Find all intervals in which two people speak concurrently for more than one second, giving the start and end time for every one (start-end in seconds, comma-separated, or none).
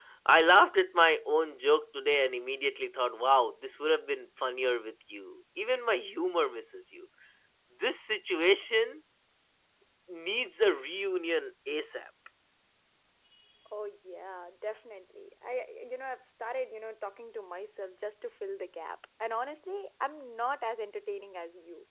none